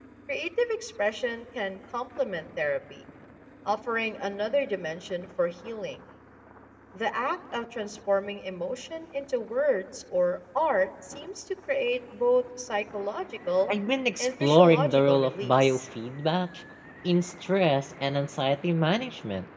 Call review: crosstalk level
present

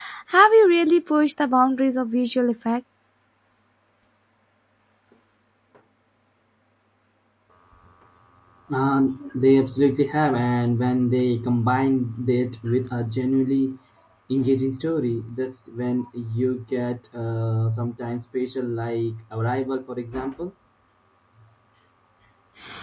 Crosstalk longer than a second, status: none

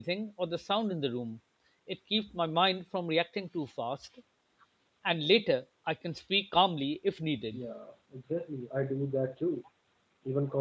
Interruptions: none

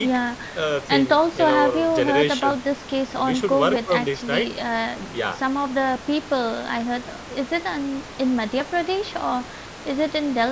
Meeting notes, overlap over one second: present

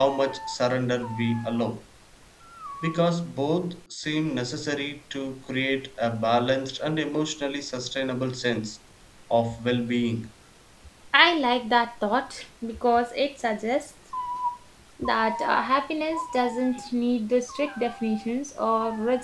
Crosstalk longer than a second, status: none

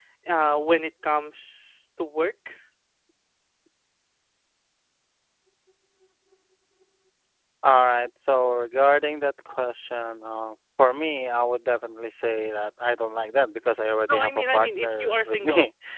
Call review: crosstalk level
present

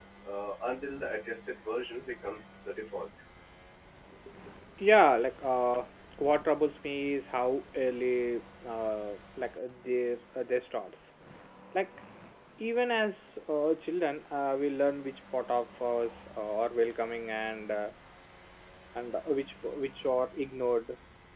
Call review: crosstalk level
none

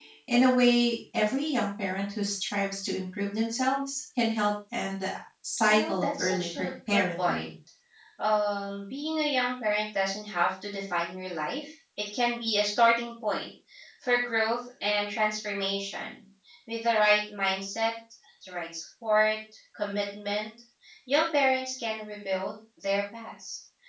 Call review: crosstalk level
present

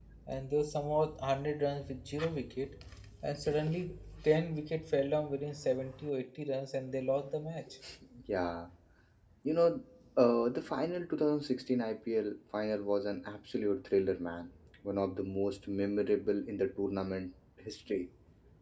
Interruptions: none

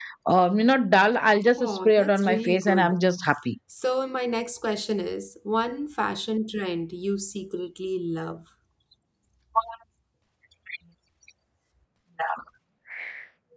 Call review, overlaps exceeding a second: present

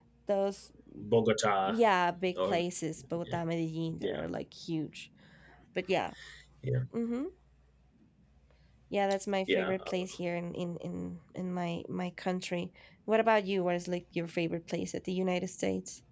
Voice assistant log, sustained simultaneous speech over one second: none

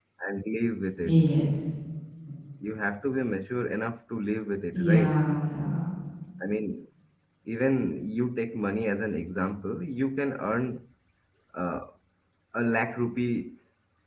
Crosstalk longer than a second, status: none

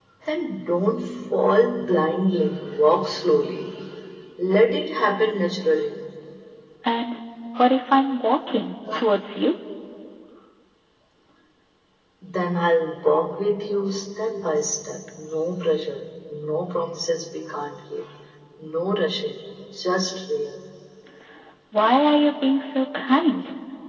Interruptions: none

